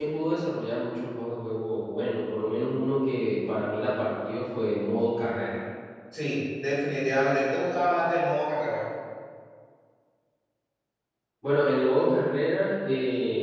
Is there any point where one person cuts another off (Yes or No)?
No